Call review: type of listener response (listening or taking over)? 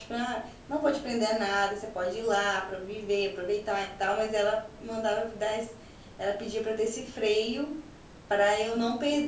listening